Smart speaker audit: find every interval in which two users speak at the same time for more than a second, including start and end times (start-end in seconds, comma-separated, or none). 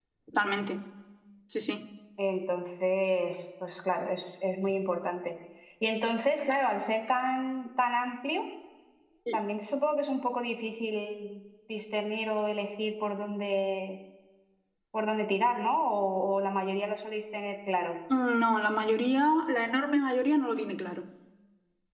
none